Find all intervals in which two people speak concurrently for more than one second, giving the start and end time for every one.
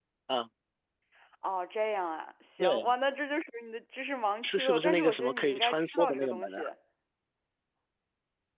4.4-6.6

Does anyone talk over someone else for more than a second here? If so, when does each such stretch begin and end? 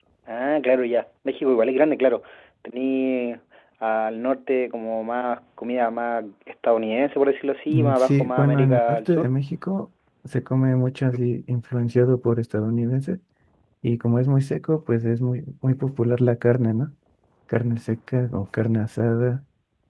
7.7-9.3

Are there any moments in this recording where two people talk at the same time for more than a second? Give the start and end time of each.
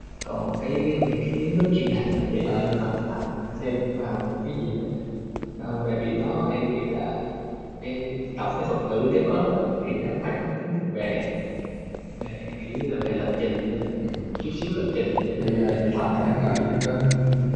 15.4-16.7

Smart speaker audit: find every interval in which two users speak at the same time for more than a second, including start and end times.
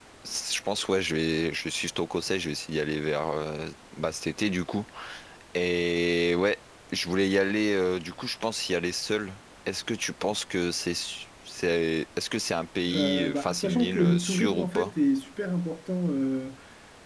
12.9-14.9

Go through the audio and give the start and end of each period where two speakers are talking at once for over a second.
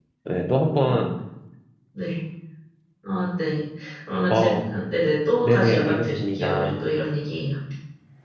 5.4-6.7

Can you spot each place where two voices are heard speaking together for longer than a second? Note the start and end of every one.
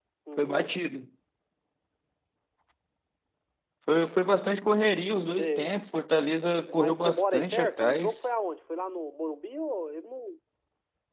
6.7-8.2

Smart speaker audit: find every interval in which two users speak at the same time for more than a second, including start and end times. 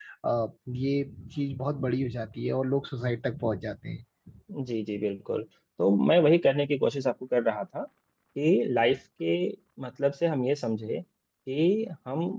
none

